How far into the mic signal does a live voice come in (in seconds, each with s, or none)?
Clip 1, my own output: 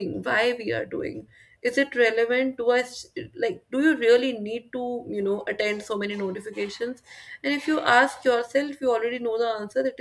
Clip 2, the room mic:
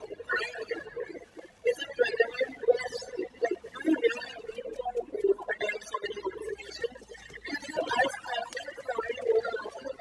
none